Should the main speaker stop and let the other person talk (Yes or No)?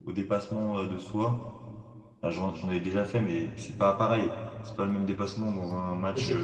Yes